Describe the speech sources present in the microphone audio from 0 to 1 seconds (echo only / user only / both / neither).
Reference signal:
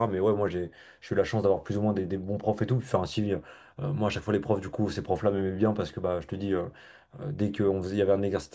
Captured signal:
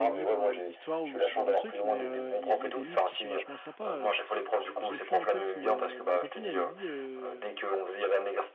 both